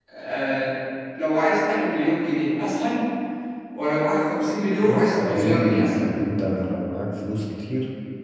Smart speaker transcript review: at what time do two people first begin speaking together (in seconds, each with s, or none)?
4.8 s